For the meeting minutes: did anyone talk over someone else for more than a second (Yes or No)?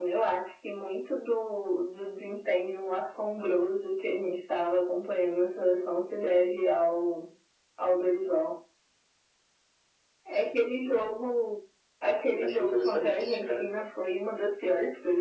Yes